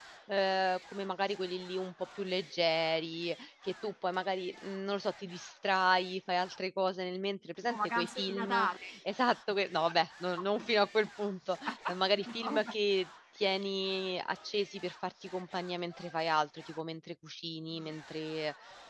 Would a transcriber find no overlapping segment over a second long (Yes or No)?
No